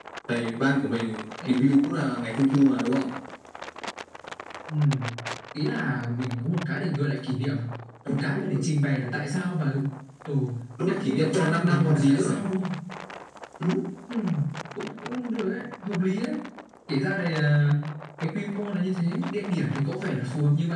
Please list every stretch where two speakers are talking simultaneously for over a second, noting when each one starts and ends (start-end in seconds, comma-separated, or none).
11.0-12.4